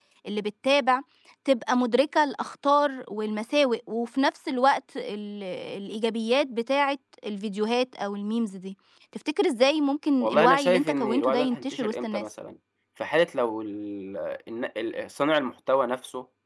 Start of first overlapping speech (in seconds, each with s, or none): 10.2 s